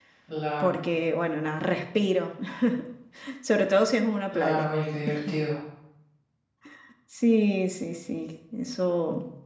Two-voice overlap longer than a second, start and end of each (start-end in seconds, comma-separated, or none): none